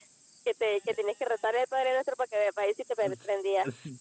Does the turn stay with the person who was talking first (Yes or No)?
No